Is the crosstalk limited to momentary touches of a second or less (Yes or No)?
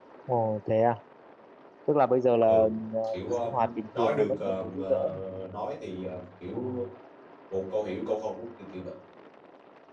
No